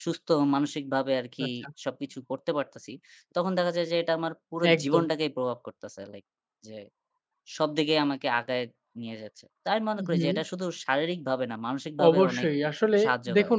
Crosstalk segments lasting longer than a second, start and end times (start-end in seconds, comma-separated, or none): none